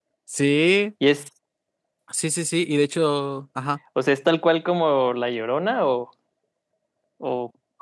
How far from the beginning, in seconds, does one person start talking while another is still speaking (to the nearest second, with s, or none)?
none